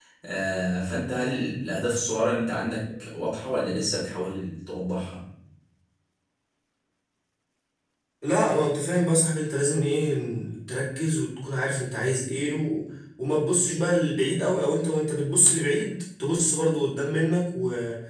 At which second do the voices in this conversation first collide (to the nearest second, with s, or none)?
none